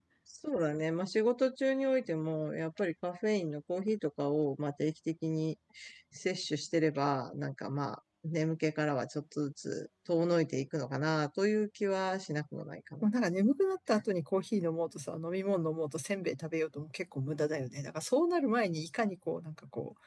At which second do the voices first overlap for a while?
none

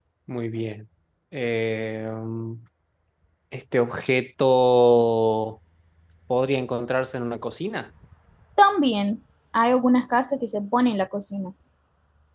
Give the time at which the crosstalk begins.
none

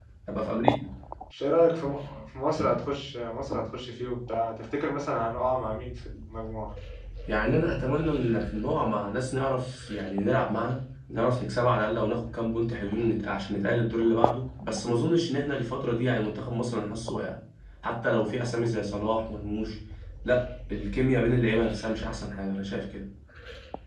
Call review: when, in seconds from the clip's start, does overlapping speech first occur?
none

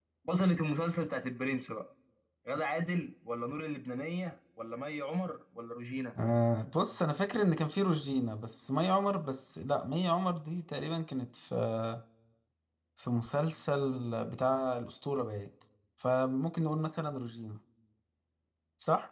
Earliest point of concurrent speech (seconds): none

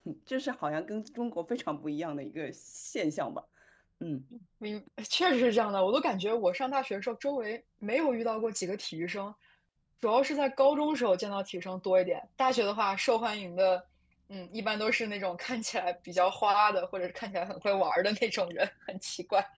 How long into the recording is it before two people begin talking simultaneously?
none

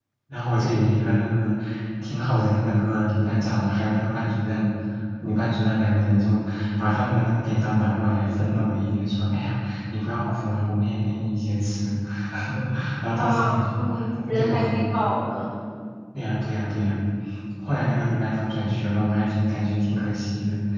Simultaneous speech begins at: 13.2 s

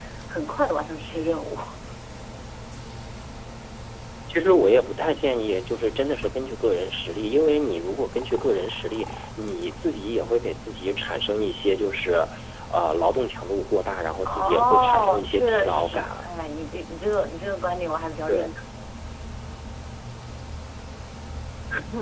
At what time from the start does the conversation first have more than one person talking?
14.2 s

